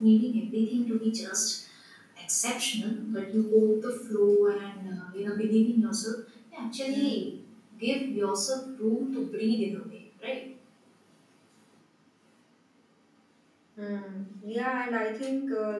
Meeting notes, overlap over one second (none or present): none